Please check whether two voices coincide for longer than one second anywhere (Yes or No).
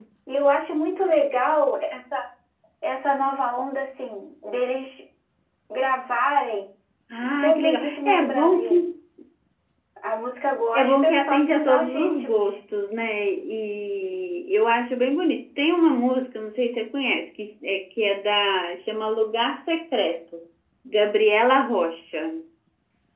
Yes